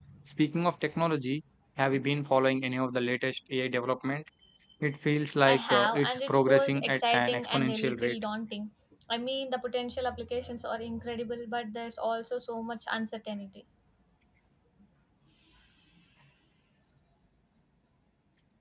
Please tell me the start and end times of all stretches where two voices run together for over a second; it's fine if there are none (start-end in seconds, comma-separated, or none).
5.5-8.2